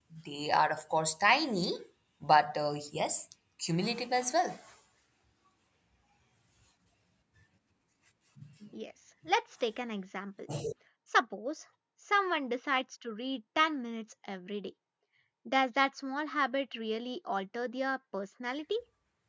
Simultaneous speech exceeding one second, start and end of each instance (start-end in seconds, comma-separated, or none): none